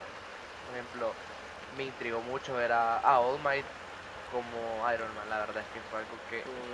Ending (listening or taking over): listening